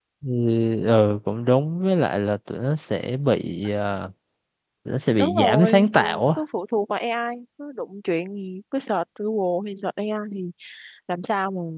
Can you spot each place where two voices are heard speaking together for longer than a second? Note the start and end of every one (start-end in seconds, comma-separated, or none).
5.2-6.4